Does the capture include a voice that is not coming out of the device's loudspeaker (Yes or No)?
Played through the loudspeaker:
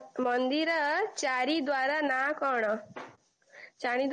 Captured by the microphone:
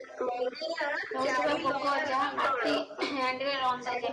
Yes